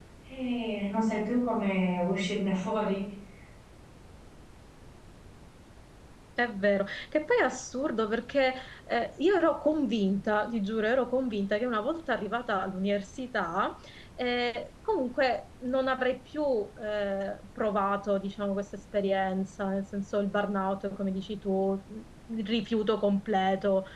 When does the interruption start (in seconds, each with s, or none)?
none